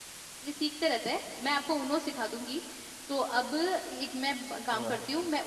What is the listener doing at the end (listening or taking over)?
listening